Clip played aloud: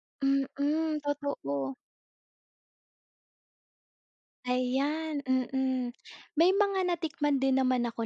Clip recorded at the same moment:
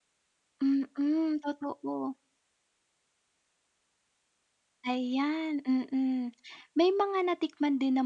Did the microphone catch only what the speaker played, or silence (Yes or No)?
Yes